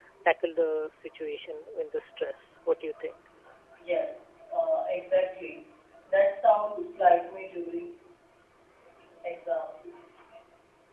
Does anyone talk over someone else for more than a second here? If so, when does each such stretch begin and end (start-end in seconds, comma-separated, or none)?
none